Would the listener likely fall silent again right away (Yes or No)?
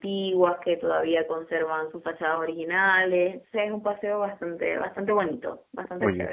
No